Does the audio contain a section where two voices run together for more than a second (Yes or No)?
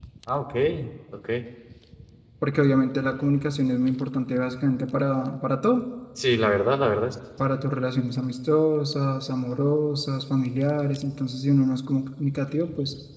No